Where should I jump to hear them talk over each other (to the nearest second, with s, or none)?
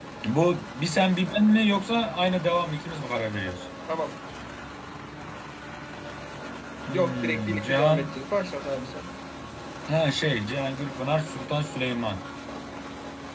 7 s